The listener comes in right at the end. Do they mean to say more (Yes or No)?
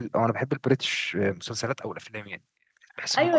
Yes